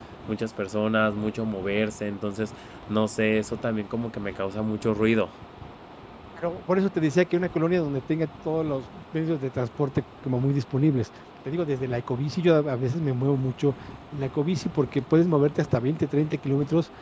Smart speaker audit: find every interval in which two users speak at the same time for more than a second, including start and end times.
none

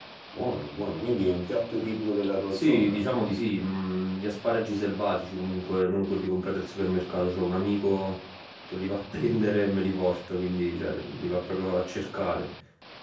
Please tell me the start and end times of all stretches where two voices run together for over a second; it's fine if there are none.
none

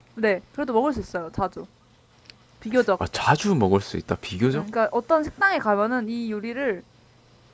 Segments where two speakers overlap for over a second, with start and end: none

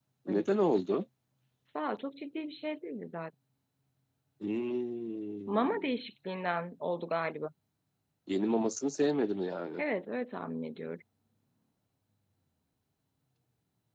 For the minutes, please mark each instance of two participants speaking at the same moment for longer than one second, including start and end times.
none

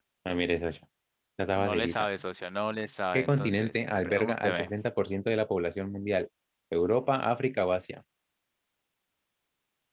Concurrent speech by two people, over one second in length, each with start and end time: 3.1-4.7

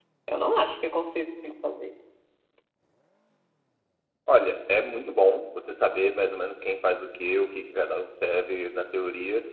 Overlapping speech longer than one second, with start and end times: none

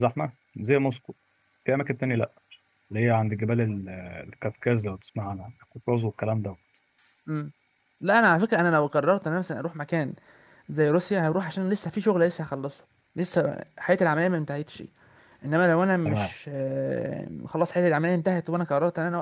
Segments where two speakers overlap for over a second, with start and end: none

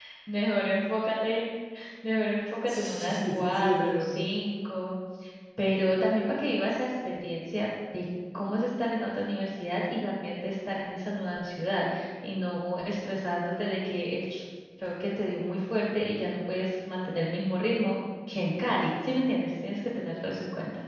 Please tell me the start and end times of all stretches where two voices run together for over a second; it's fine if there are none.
2.7-4.2

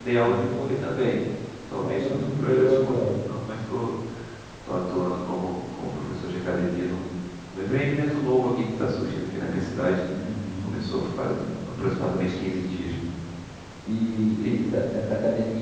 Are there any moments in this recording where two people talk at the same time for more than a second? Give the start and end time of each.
1.8-3.2

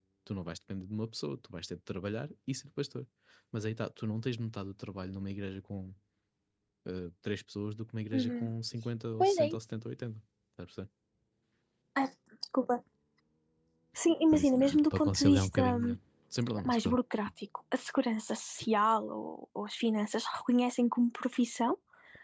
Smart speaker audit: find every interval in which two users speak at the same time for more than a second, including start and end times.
14.3-15.9

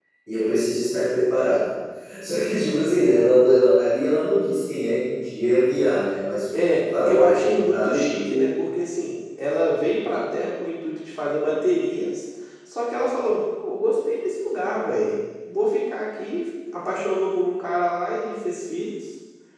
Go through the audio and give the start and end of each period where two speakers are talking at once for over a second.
6.8-8.4

